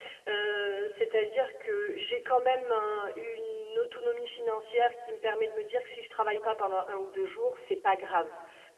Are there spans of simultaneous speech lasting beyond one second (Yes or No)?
No